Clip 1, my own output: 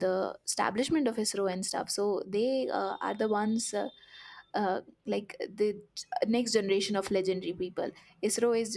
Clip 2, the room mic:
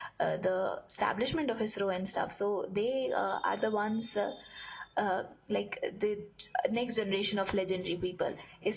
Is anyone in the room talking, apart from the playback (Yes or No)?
No